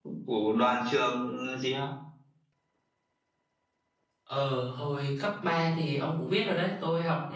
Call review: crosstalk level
none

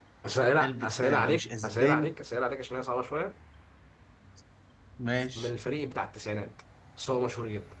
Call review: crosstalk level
present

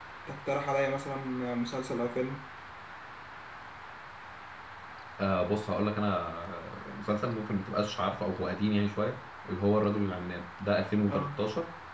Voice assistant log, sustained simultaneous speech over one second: none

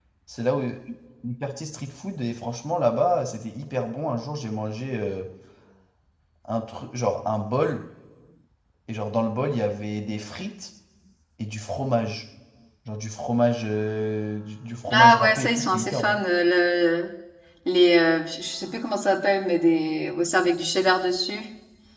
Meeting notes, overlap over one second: present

